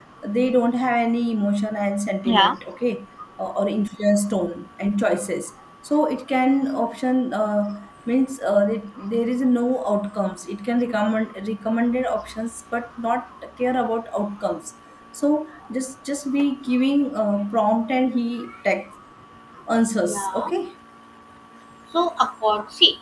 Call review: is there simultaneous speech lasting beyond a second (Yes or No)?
No